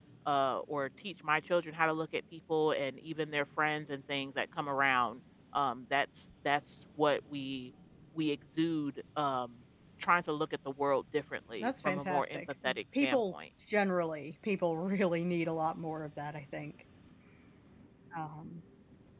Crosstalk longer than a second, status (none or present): present